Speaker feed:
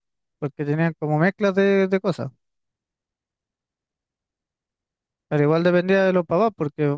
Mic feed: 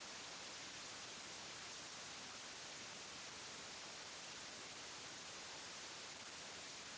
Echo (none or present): none